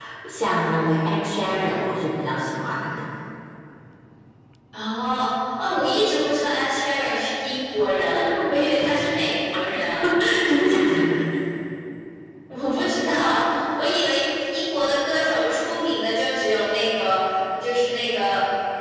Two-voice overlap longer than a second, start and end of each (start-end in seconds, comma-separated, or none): none